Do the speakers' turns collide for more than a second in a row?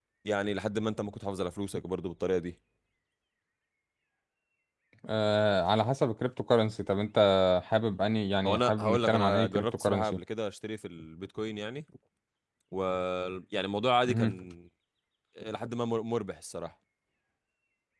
Yes, from 8.4 s

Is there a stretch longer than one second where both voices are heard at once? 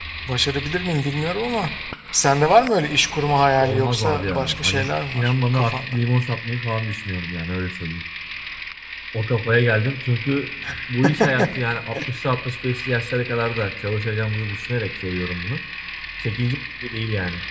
Yes, from 3.6 s

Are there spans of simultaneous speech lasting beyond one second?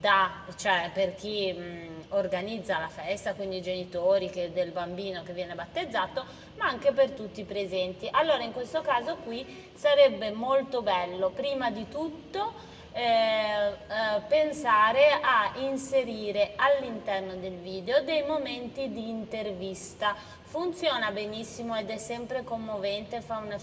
No

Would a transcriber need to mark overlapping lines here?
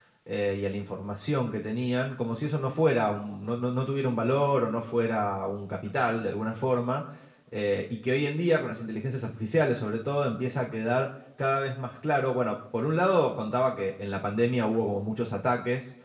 No

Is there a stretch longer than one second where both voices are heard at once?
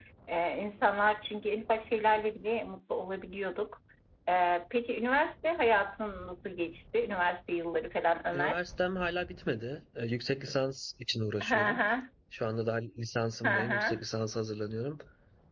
No

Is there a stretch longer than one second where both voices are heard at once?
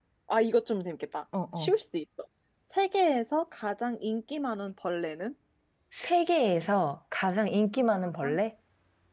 No

